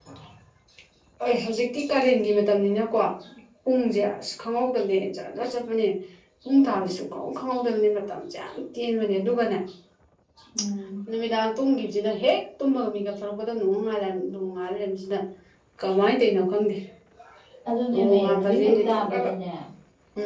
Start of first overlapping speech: 17.9 s

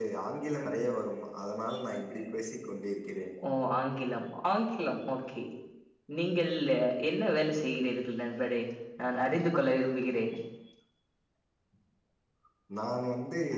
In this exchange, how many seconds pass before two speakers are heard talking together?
none

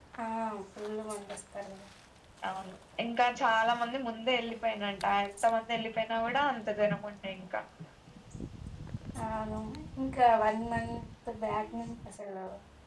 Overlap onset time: none

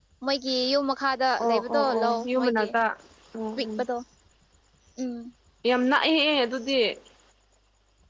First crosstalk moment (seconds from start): 1.4 s

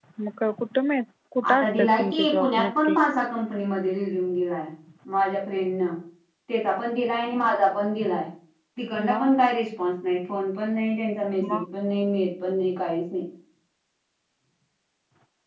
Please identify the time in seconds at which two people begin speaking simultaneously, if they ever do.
1.5 s

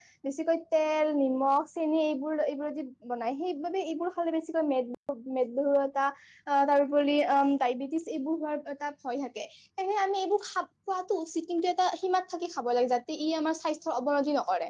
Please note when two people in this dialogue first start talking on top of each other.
none

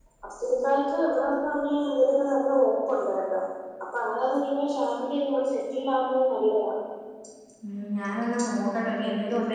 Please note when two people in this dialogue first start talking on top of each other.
none

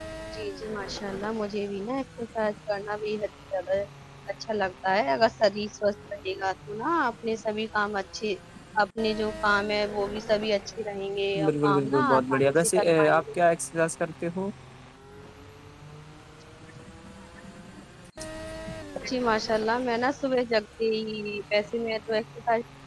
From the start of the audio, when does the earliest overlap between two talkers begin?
11.4 s

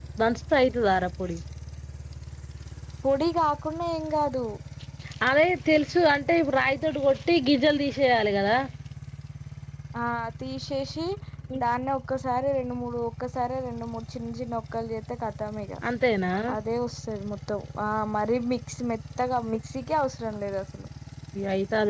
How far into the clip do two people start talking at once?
none

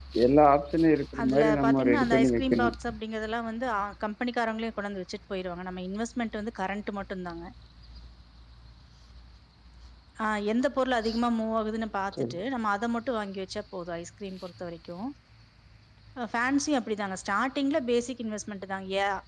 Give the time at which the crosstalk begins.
1.2 s

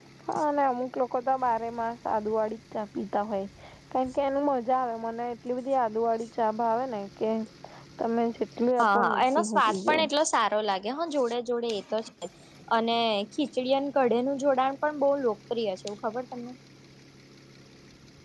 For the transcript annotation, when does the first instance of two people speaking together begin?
8.8 s

